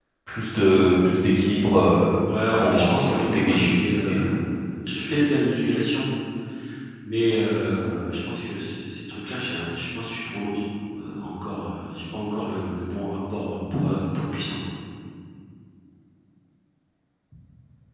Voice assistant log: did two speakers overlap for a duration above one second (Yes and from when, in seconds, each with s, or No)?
Yes, from 2.2 s